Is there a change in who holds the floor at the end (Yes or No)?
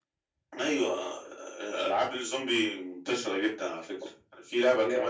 No